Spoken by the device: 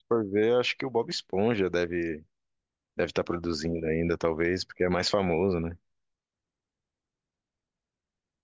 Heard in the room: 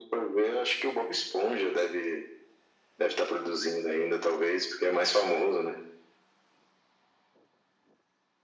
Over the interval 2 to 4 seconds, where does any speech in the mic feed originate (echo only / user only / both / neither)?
echo only